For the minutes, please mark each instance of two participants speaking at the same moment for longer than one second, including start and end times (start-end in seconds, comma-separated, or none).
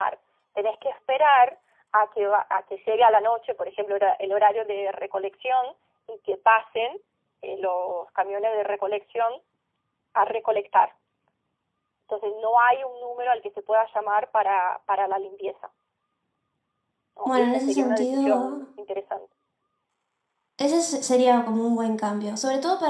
17.3-18.7